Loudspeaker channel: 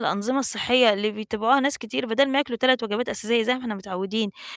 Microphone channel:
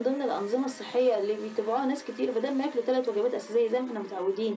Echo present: Yes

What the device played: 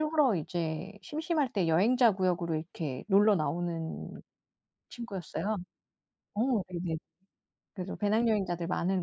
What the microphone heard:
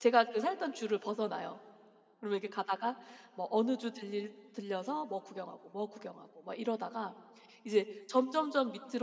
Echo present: No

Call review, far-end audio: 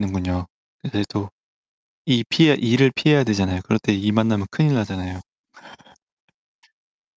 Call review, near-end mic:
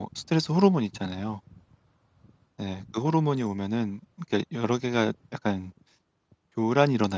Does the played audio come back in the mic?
No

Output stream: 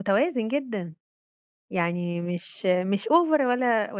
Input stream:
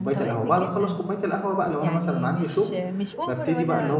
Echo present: Yes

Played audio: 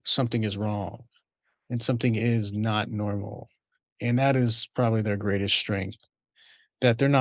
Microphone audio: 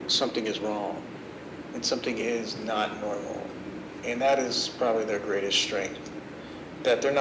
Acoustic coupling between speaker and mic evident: Yes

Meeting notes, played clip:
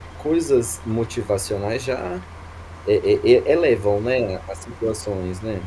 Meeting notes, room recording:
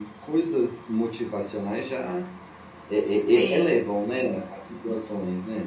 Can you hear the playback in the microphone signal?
Yes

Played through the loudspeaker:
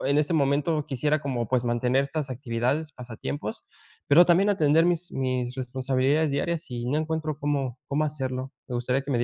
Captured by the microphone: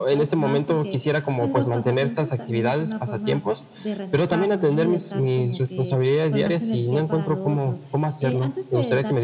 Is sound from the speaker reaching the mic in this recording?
Yes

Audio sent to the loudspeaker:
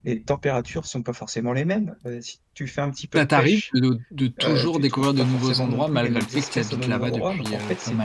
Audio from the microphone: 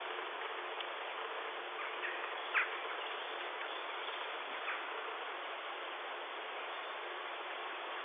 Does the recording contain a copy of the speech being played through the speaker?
No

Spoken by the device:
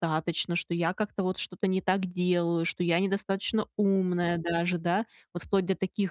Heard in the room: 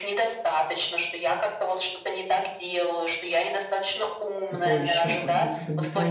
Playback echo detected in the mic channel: Yes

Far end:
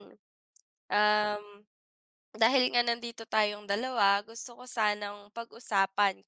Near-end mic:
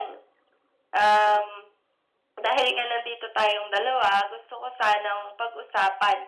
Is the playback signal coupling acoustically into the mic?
Yes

